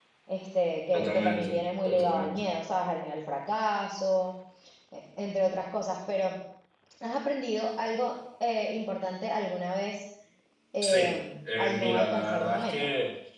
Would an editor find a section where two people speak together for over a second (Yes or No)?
Yes